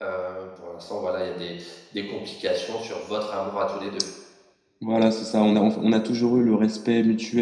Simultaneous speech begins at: none

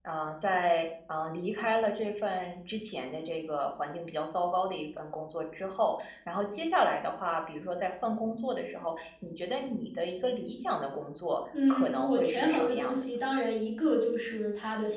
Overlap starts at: 11.5 s

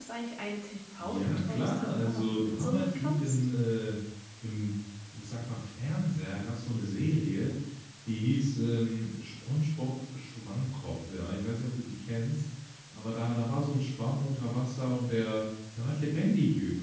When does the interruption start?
1.0 s

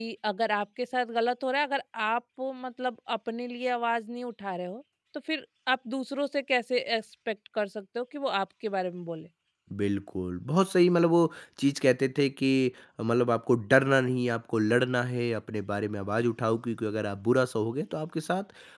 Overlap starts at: none

